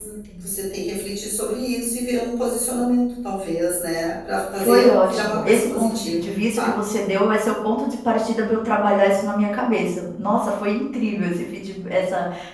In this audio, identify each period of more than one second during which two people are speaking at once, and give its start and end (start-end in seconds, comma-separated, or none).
4.6-6.8